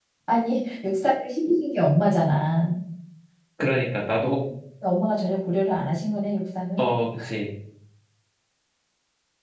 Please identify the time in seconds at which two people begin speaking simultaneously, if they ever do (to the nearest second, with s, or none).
none